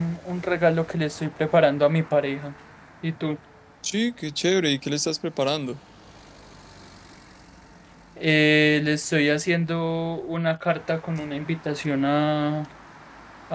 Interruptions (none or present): none